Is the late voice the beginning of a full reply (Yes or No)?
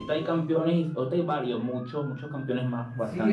Yes